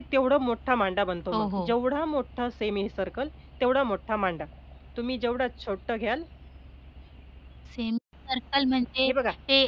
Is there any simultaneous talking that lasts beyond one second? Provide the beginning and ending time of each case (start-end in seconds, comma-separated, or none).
none